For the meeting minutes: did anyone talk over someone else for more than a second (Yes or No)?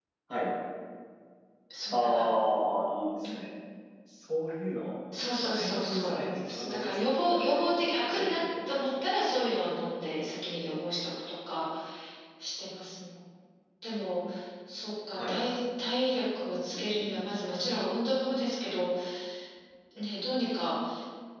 Yes